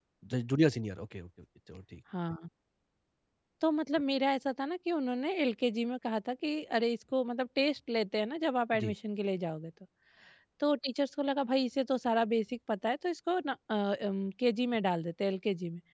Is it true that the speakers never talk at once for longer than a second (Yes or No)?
Yes